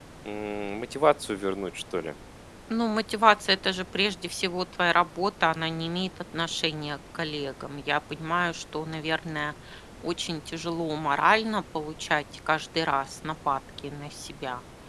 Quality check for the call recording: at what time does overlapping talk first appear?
none

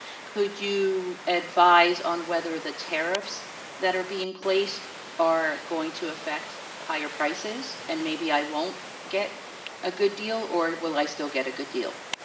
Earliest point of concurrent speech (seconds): none

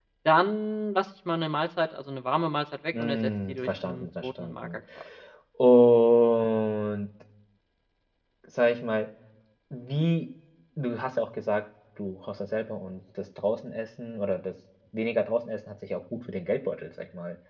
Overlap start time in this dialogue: 2.9 s

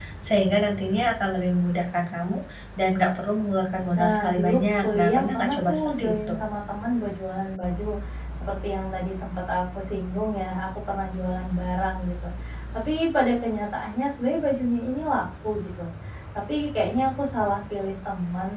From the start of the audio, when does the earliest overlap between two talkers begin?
4.0 s

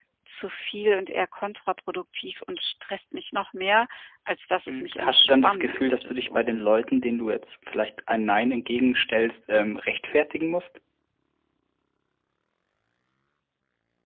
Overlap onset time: 4.7 s

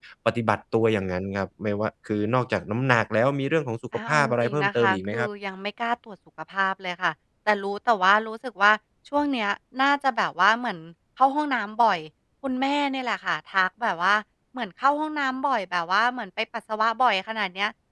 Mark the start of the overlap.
3.9 s

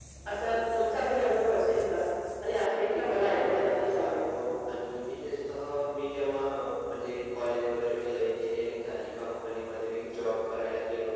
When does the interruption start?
2.8 s

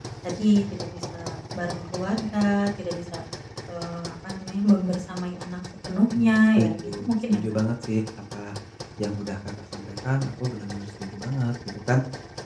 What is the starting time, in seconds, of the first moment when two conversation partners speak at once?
6.1 s

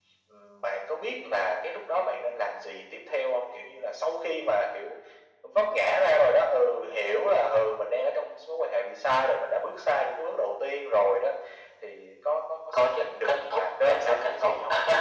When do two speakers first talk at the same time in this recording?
12.7 s

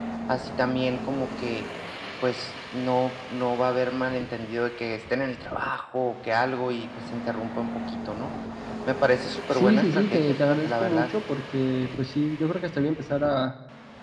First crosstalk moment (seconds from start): 9.5 s

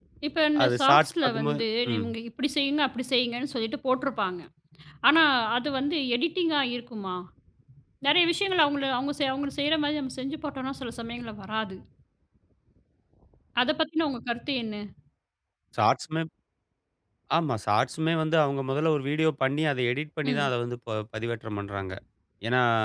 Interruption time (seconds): 0.6 s

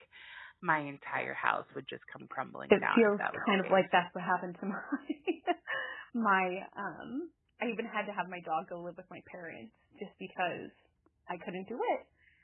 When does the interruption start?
2.7 s

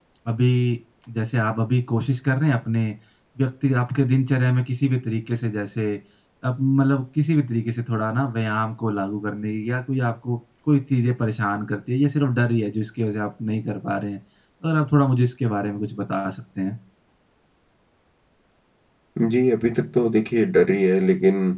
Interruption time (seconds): none

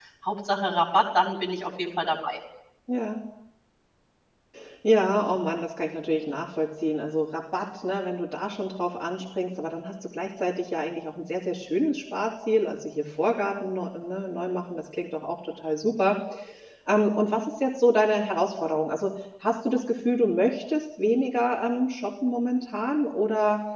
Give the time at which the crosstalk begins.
none

